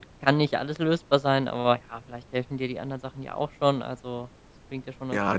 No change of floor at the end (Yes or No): No